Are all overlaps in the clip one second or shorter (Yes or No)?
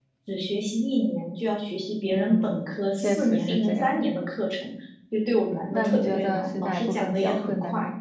No